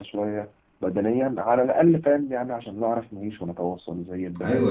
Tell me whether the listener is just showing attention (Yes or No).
No